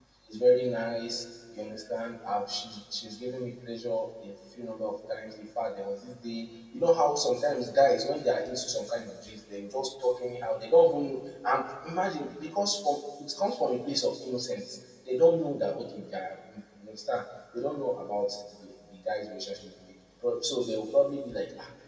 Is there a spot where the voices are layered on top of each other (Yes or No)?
No